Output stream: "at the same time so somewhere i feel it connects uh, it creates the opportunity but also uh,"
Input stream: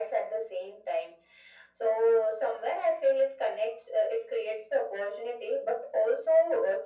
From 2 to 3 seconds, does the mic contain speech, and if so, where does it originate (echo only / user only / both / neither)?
echo only